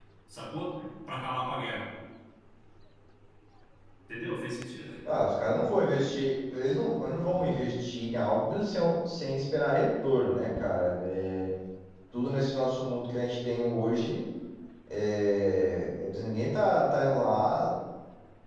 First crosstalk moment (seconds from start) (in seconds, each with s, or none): none